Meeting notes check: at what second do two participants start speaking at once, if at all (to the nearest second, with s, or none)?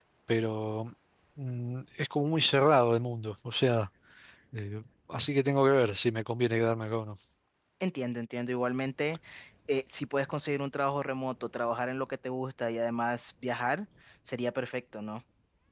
none